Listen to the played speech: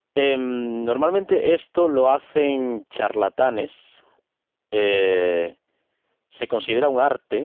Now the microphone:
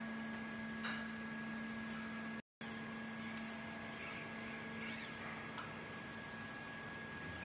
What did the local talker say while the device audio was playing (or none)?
none